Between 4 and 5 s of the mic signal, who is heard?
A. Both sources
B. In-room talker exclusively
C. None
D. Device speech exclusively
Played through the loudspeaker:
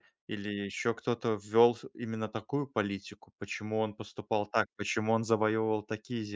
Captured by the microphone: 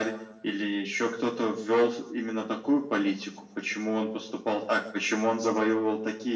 D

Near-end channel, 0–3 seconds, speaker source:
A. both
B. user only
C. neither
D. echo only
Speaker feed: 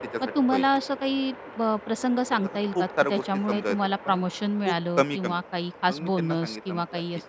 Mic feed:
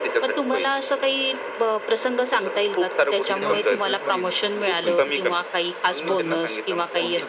D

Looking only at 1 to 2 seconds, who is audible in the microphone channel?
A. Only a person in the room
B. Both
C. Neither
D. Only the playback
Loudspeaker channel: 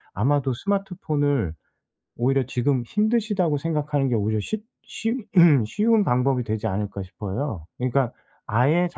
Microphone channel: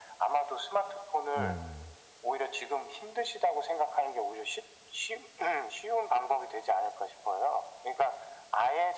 B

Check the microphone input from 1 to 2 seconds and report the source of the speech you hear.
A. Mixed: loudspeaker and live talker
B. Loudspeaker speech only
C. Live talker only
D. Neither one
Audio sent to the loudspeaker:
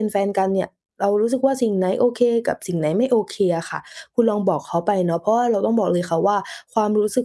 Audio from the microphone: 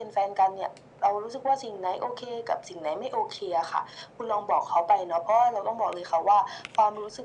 B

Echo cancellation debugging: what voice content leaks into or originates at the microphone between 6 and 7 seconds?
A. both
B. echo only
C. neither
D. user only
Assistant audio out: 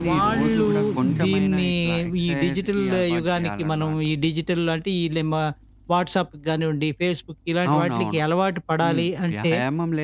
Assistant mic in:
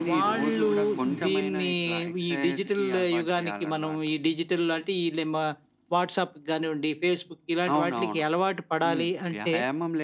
B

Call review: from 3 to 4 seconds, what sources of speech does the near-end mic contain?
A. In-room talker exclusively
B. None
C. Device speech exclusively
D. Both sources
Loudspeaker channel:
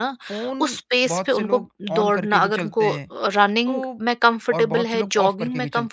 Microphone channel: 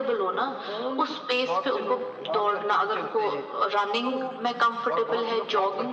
C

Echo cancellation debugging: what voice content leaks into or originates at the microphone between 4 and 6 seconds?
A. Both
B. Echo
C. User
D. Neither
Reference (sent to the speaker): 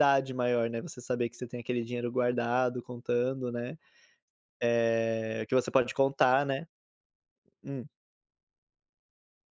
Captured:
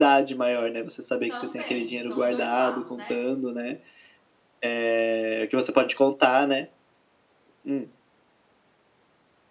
B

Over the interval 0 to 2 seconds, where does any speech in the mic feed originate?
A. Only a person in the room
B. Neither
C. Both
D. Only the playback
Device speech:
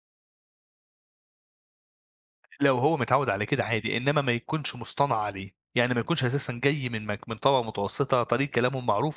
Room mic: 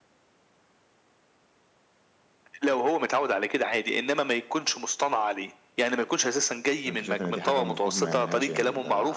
B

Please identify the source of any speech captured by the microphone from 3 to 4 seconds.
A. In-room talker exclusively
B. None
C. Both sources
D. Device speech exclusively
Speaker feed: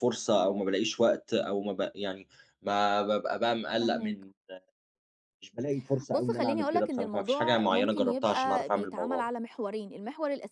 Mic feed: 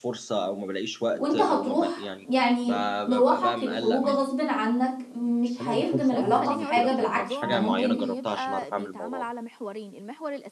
C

